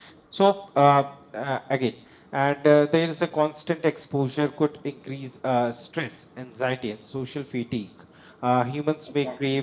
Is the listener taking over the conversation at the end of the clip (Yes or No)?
No